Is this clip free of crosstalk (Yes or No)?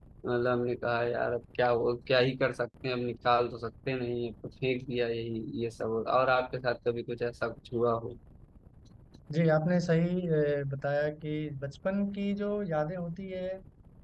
Yes